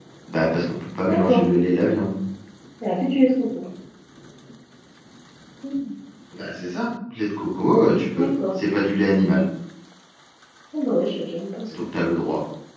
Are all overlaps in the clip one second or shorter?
Yes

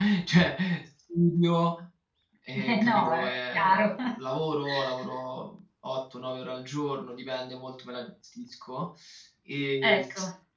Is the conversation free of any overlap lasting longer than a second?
No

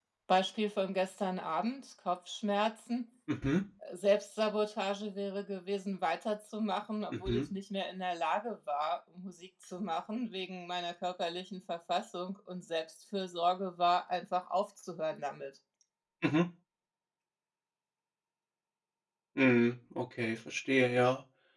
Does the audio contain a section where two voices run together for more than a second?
No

